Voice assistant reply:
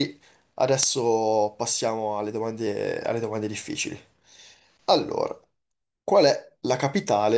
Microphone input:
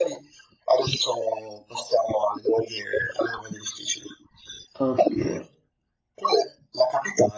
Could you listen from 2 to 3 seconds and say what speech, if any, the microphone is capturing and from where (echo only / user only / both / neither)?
echo only